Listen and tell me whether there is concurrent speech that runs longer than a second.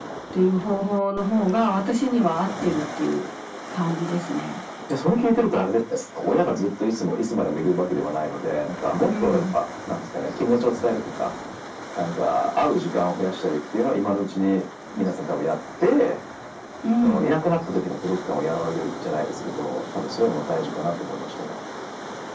No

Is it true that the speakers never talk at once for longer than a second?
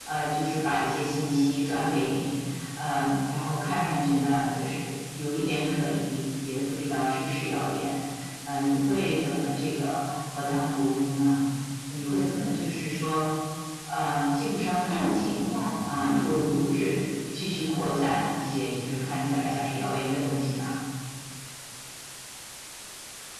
No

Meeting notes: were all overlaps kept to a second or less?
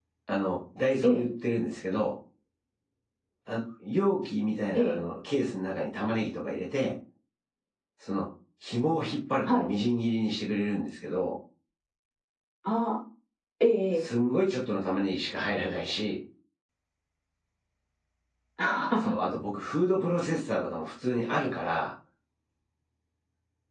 Yes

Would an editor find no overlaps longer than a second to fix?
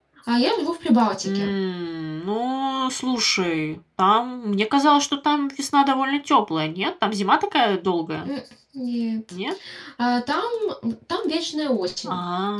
Yes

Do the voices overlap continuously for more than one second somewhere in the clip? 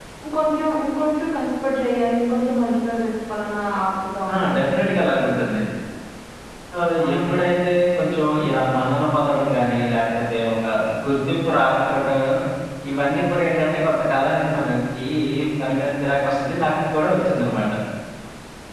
No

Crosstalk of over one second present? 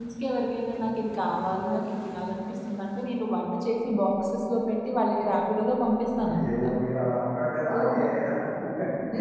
No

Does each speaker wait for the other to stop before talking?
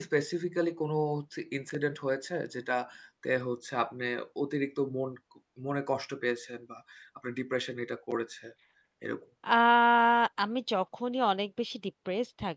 Yes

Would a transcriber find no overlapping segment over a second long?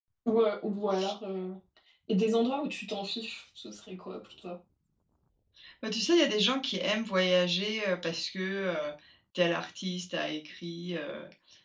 Yes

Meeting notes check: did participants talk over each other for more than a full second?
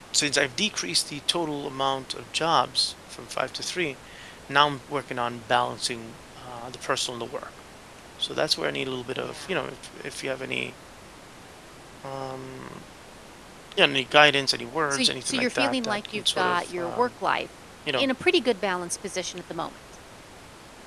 Yes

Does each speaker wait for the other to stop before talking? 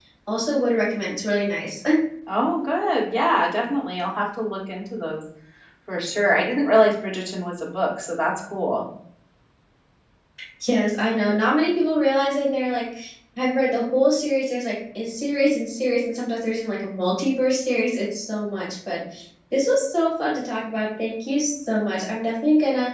Yes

